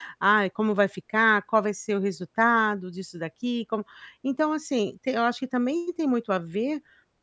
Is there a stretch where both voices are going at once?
No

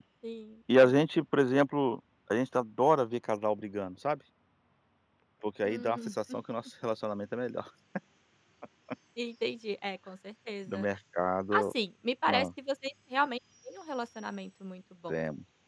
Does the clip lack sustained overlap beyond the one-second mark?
Yes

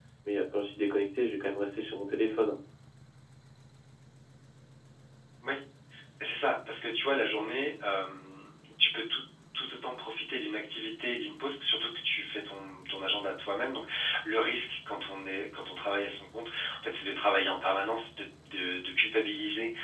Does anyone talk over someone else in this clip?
No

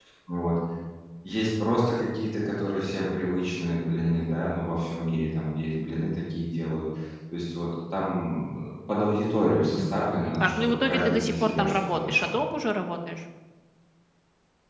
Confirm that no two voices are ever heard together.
No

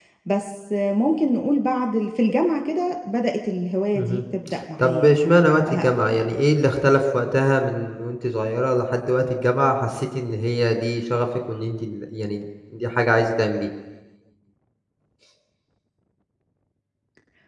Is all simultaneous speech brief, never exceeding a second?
No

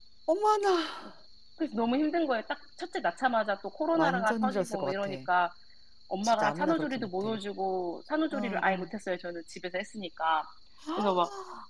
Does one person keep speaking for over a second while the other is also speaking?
Yes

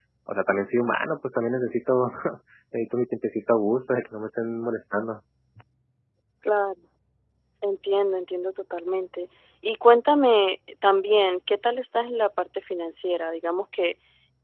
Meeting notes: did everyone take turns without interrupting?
Yes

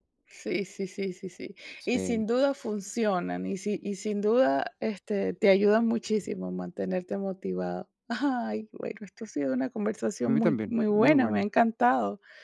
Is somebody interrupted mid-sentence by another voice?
Yes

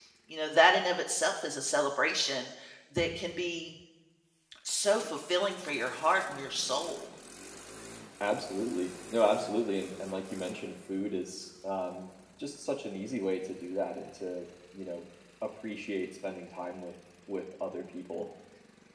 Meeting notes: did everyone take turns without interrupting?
Yes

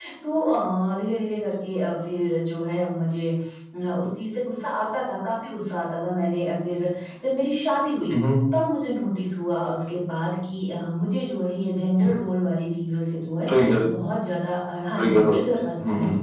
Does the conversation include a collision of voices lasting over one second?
No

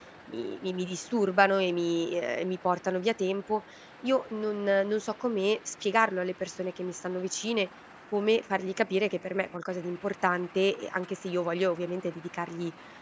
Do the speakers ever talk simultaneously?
No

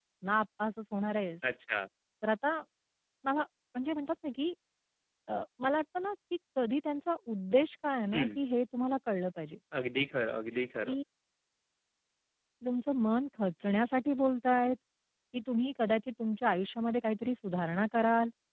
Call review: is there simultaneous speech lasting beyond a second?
No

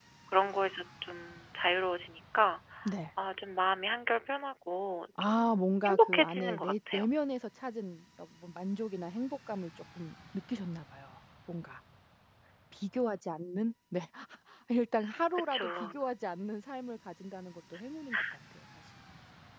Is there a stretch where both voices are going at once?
Yes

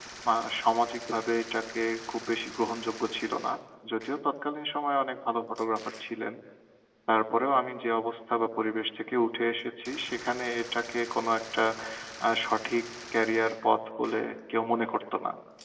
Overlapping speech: No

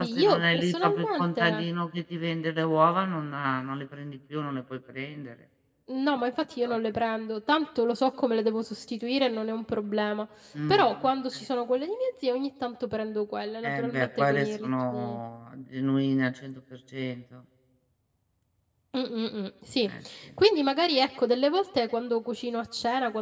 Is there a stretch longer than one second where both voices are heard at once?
Yes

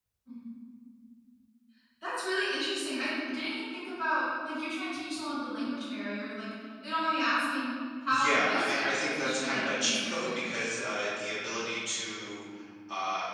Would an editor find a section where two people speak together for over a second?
Yes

